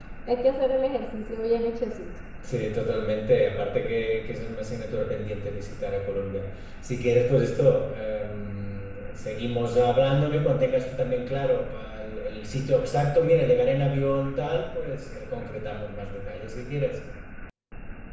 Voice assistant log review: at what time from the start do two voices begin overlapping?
none

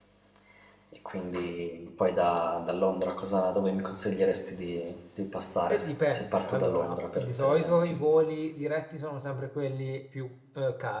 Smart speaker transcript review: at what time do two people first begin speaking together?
5.7 s

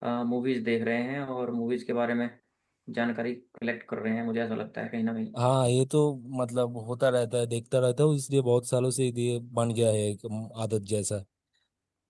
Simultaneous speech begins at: none

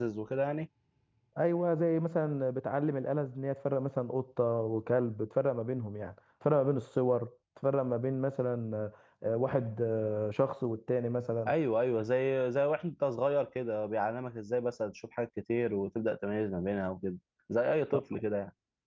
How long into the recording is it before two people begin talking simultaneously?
none

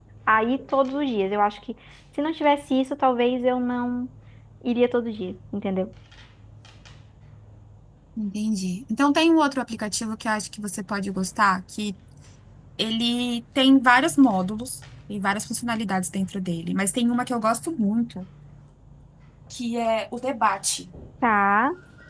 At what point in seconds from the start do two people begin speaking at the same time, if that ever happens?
none

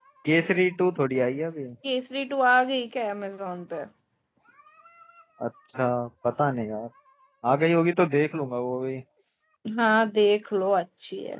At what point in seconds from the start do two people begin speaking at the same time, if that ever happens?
none

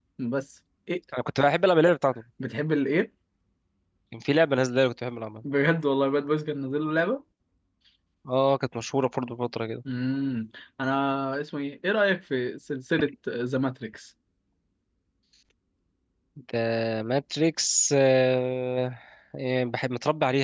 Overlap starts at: none

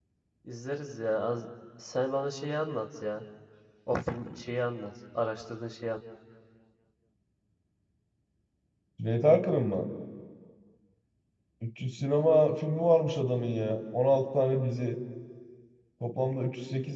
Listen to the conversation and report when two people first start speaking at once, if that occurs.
none

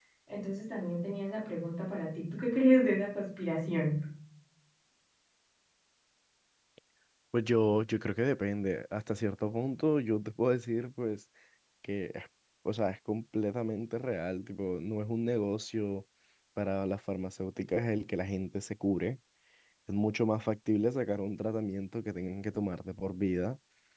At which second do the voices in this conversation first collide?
none

